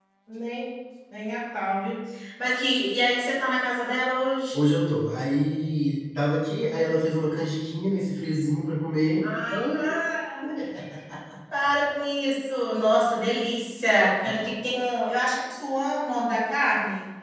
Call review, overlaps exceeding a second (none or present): none